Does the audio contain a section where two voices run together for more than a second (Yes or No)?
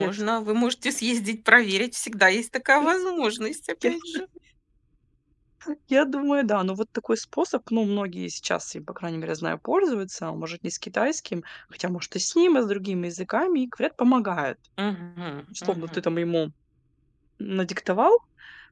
No